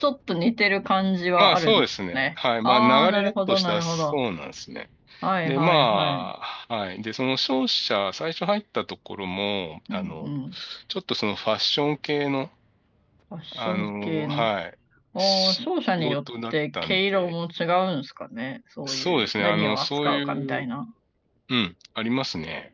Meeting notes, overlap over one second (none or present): present